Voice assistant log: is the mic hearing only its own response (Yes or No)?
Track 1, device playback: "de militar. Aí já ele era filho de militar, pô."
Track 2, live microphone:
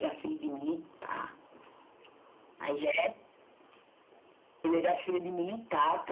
Yes